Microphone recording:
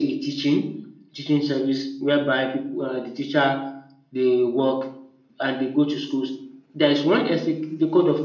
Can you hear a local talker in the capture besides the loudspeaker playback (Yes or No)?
No